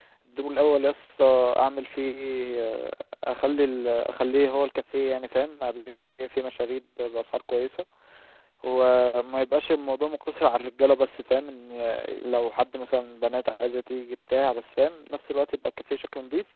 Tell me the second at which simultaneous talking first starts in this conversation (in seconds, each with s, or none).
none